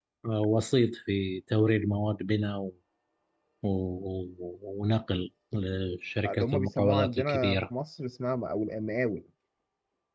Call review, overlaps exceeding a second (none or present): present